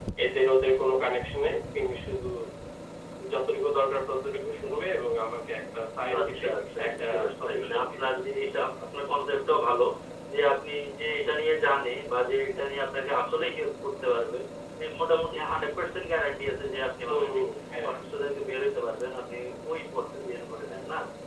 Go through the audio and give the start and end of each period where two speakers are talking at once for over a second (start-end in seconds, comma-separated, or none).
6.2-8.0